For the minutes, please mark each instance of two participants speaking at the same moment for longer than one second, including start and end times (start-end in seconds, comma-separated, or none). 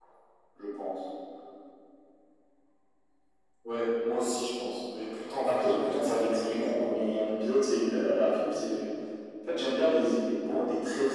5.4-6.9